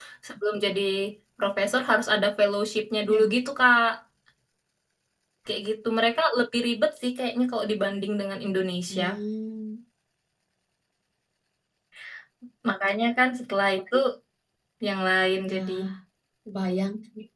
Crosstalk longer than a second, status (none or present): none